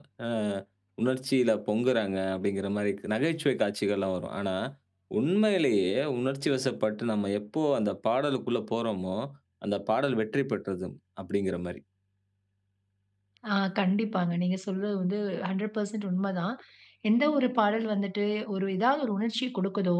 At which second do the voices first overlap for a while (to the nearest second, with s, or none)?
none